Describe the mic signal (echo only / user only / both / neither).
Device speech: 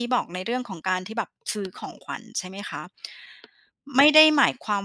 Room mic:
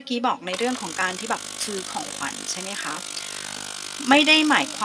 echo only